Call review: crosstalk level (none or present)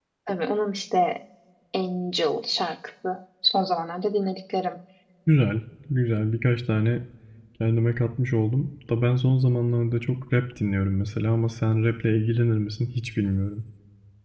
none